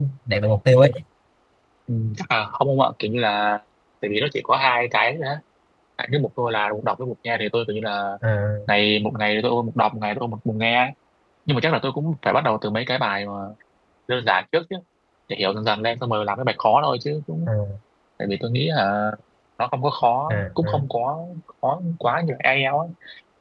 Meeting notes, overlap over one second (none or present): none